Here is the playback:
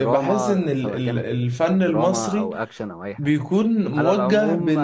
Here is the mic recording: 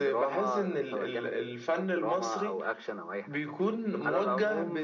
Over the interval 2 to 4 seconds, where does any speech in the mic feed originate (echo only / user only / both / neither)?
echo only